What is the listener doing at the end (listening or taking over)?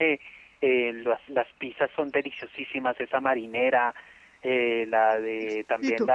listening